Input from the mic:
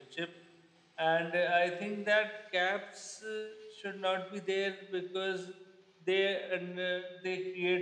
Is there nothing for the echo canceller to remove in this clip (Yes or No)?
No